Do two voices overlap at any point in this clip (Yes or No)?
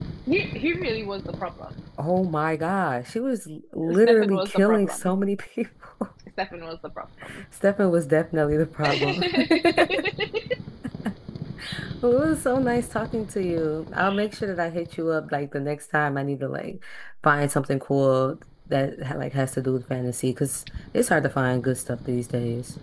Yes